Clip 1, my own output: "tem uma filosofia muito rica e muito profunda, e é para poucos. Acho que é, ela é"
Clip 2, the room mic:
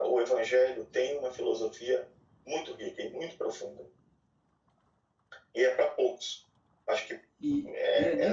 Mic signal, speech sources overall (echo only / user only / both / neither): both